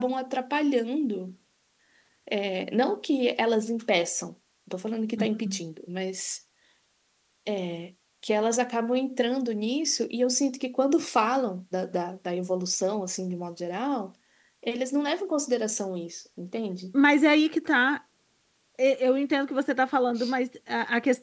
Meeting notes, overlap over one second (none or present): none